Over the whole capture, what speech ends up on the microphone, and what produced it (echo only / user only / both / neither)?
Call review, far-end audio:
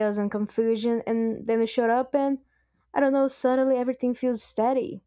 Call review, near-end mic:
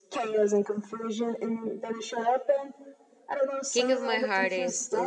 both